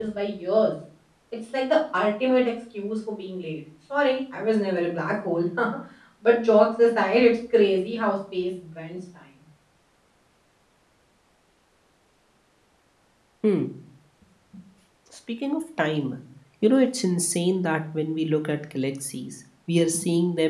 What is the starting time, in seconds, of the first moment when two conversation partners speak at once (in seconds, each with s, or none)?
none